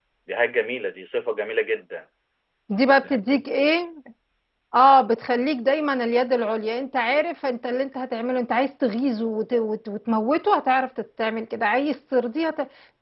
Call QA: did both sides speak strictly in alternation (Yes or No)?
Yes